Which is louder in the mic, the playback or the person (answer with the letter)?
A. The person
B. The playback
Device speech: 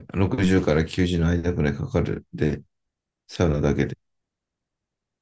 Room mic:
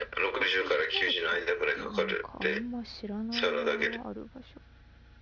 B